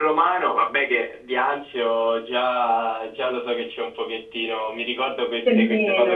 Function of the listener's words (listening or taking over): listening